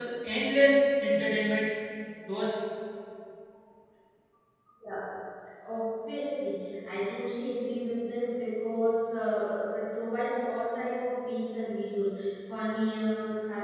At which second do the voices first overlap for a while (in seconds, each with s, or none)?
none